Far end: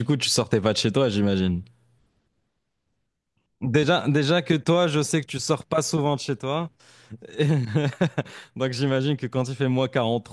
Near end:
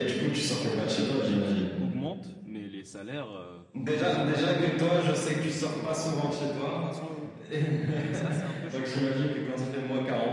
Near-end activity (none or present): present